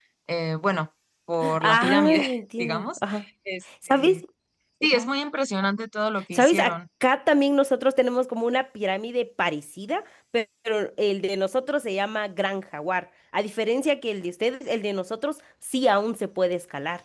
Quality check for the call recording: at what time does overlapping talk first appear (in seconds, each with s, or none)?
1.6 s